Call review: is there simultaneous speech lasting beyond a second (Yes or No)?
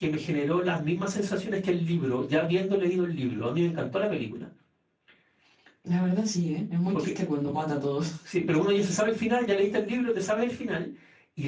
No